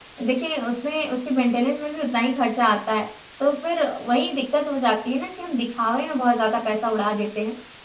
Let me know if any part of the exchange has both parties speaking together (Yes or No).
No